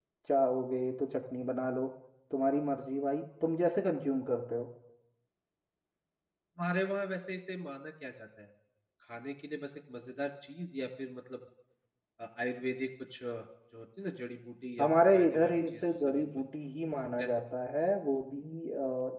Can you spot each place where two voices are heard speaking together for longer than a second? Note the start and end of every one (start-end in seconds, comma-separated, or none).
14.8-16.2